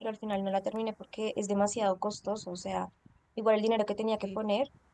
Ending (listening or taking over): listening